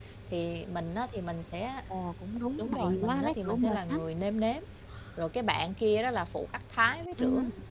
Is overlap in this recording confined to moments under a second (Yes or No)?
No